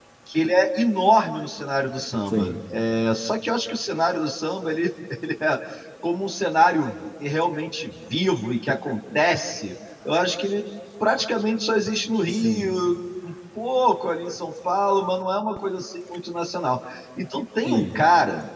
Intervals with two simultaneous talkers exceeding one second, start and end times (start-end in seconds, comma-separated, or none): none